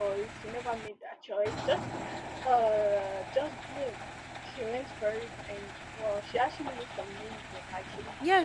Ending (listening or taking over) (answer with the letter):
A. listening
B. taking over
B